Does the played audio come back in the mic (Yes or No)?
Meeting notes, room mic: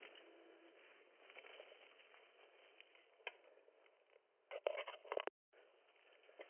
No